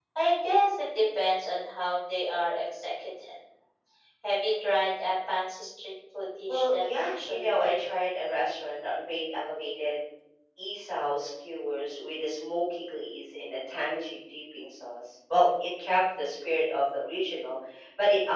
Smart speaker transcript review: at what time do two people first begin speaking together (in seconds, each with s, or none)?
6.5 s